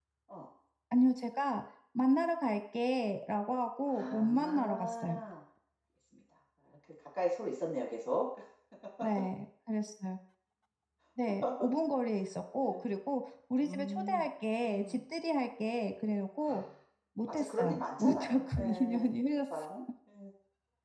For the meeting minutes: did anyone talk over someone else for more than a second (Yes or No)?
Yes